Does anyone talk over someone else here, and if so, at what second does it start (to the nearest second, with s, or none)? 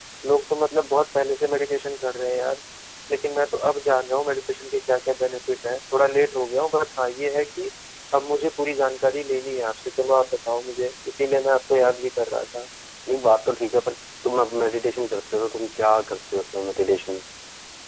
none